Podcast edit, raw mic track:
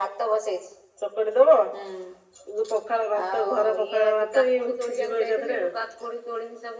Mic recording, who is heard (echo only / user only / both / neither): echo only